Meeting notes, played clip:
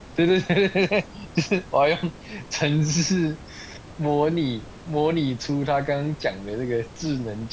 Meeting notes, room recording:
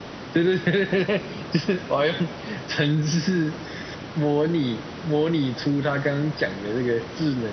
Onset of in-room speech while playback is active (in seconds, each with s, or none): none